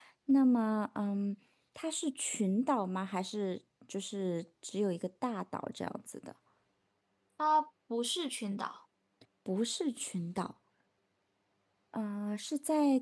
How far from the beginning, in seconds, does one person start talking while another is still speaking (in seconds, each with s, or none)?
none